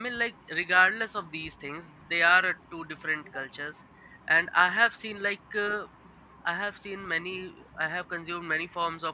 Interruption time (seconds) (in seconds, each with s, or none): none